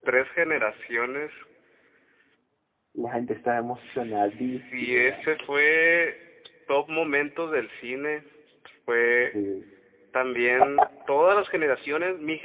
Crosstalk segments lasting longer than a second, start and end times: 3.8-5.3

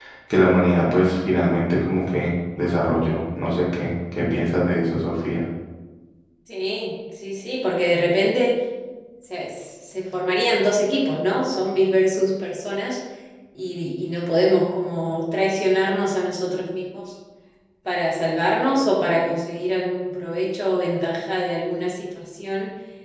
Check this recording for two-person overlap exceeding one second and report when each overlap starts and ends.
none

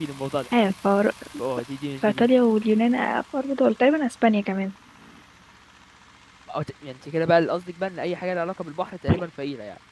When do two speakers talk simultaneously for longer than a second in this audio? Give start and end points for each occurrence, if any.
none

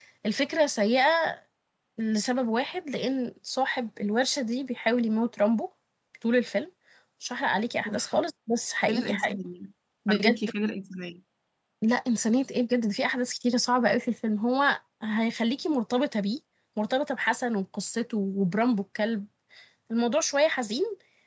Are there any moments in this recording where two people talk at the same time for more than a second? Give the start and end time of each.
none

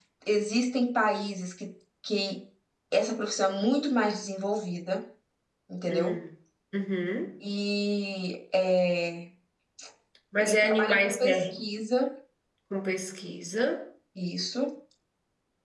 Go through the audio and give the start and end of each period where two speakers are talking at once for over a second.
10.4-11.6

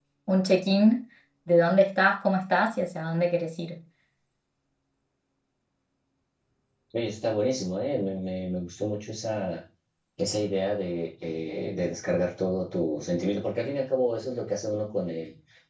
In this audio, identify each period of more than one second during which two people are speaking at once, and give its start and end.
none

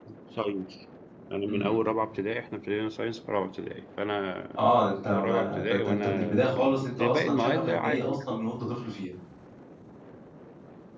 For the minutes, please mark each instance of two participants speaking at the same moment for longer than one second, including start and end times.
5.0-8.4

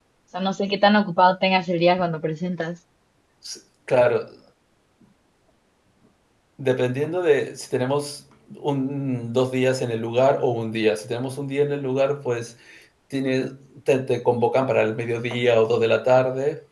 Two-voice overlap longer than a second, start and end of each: none

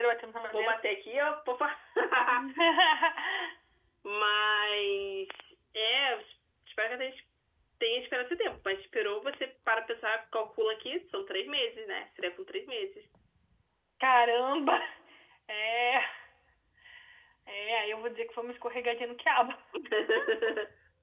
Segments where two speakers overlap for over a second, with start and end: none

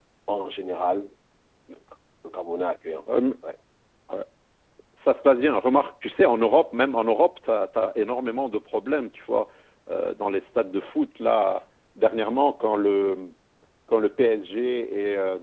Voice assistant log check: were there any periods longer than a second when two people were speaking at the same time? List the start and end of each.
none

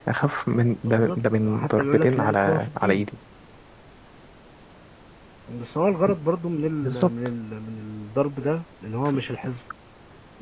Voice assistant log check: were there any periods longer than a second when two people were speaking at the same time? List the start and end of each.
0.8-3.0

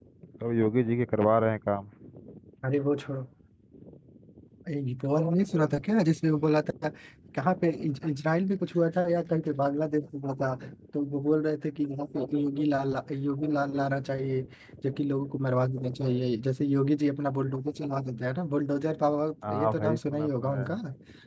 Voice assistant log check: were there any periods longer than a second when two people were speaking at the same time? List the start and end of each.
19.4-20.7

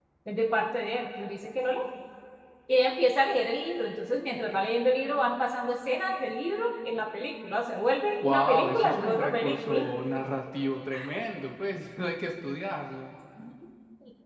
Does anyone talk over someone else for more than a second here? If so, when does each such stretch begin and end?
8.2-9.9

